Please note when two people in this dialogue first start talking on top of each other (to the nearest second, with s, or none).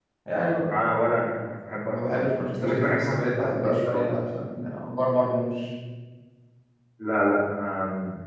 2 s